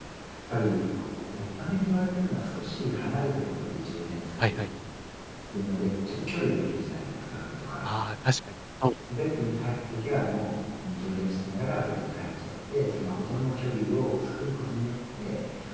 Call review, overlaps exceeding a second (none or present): none